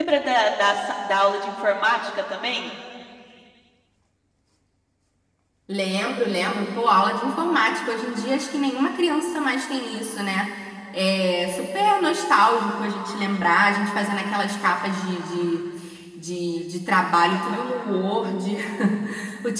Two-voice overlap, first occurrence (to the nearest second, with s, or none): none